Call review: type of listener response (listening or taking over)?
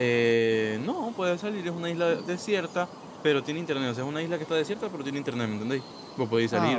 taking over